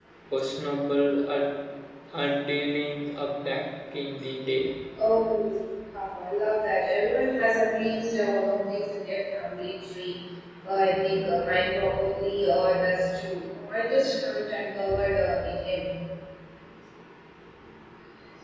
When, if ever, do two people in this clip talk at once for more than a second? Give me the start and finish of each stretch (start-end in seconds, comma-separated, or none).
none